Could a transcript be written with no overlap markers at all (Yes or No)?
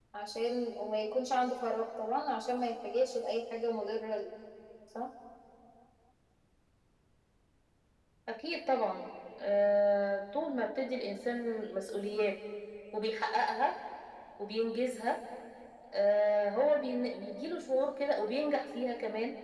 Yes